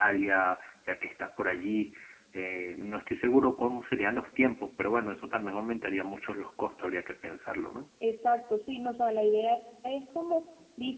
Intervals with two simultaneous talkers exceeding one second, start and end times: none

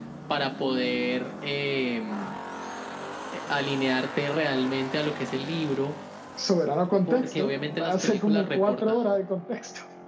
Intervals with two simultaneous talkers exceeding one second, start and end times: 7.1-9.0

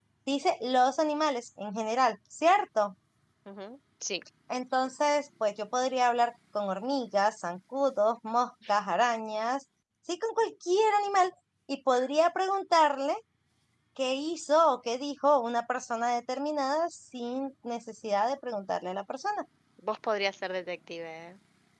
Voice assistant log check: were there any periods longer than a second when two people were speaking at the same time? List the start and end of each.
none

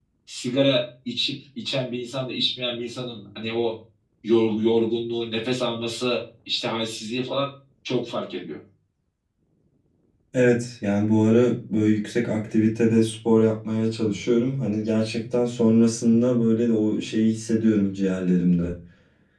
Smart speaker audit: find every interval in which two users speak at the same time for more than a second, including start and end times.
none

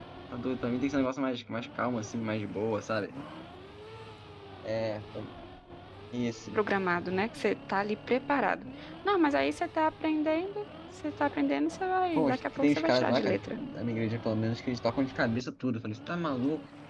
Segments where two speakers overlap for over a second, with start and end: 12.2-13.6

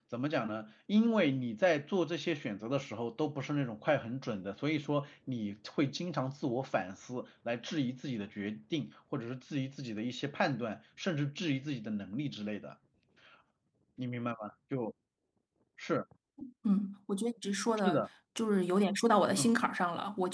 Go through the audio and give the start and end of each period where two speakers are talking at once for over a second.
none

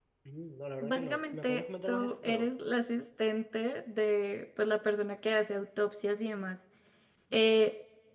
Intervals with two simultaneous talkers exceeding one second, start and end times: 0.8-2.5

